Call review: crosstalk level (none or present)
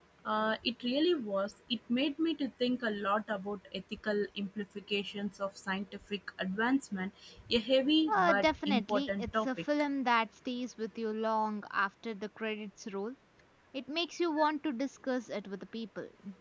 present